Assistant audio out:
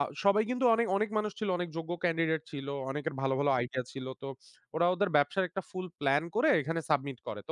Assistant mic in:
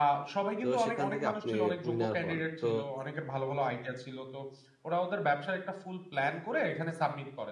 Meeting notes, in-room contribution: present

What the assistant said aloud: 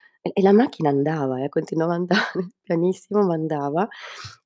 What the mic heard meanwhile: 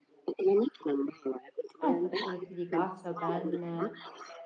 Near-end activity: present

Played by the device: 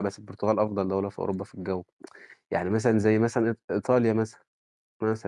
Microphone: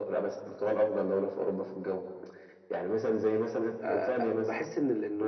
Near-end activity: present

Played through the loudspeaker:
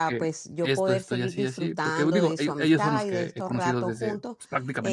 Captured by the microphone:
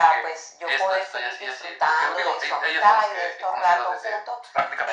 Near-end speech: none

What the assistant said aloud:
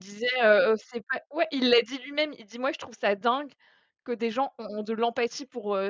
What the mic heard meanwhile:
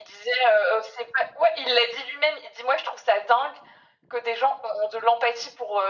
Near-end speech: none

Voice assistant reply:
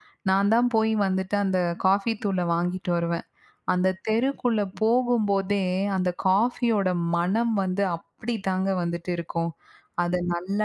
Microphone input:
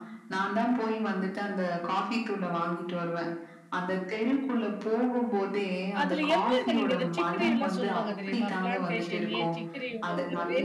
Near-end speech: present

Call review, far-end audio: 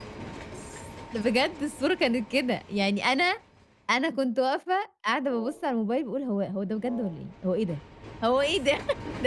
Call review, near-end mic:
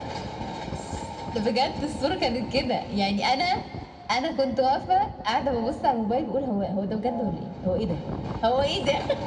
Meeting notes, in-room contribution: none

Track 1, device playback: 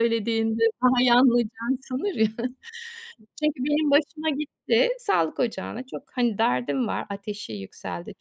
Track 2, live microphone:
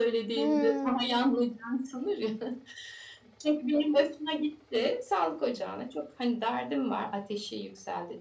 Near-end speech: present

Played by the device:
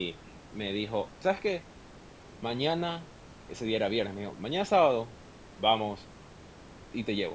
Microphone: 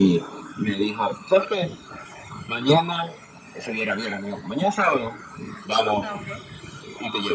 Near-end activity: present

